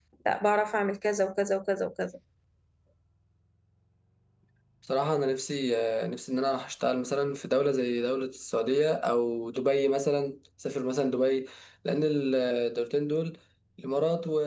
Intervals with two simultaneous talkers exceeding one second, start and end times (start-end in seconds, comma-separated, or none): none